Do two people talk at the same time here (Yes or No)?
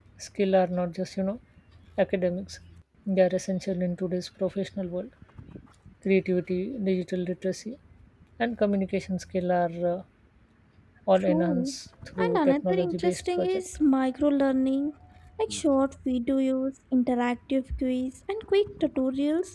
Yes